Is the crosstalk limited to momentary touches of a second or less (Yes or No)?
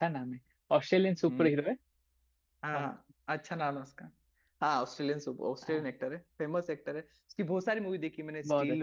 Yes